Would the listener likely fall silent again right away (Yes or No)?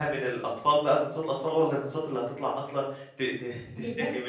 No